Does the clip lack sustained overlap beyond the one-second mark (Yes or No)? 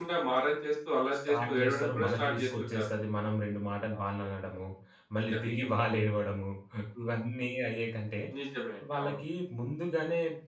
No